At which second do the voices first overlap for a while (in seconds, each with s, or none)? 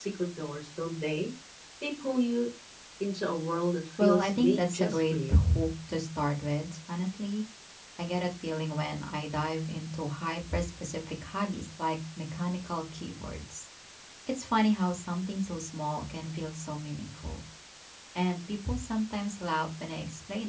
4.0 s